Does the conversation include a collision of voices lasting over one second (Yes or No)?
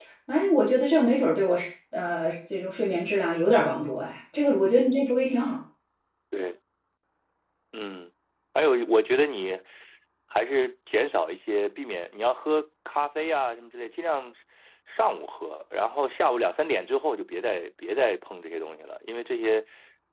No